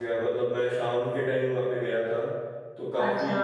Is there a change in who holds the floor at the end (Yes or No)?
No